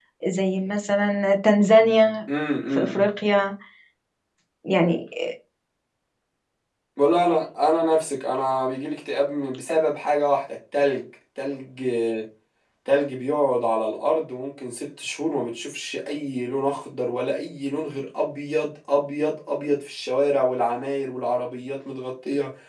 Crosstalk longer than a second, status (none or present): none